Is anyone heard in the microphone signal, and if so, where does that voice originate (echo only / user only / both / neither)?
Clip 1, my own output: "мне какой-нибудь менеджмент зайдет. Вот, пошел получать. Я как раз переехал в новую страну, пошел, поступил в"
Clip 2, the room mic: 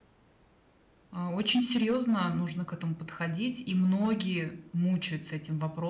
user only